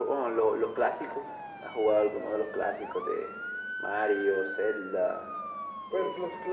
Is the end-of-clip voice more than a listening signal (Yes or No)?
Yes